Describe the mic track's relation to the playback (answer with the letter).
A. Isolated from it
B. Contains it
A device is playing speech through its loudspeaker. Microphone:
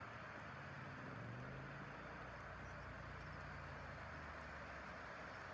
A